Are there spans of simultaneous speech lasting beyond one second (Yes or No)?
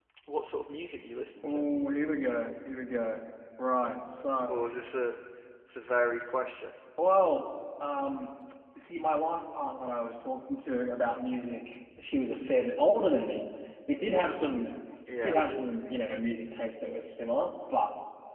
No